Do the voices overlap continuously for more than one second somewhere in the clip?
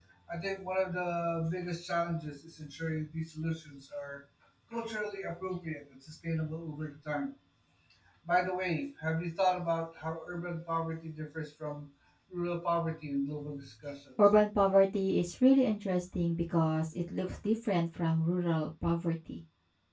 No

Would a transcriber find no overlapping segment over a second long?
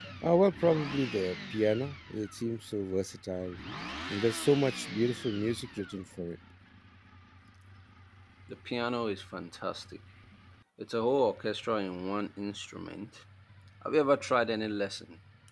Yes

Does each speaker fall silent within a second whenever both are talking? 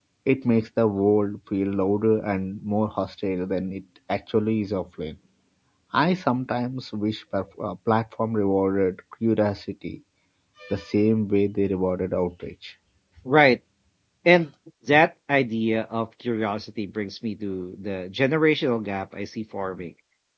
Yes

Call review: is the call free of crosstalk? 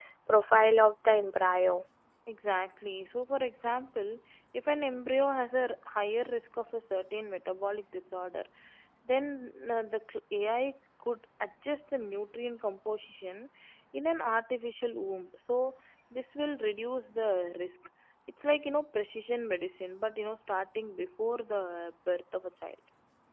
Yes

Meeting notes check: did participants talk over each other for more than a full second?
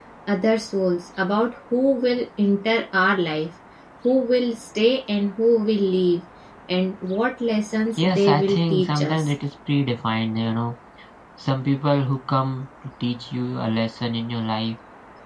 Yes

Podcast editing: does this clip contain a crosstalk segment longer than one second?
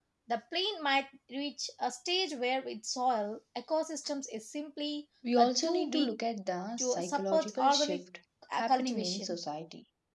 Yes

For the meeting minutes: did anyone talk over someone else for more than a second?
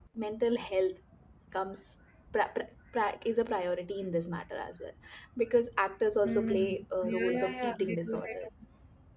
Yes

